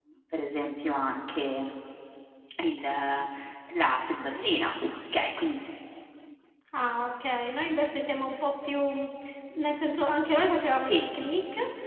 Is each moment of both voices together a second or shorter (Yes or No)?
Yes